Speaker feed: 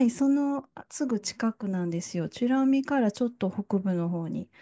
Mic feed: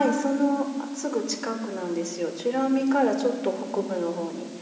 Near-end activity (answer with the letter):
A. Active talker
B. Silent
A